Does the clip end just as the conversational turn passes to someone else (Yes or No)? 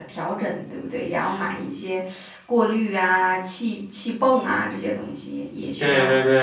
Yes